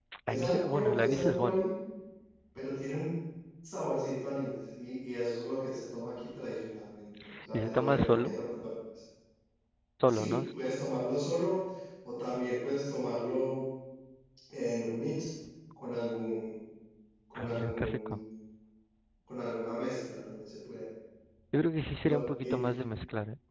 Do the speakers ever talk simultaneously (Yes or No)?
Yes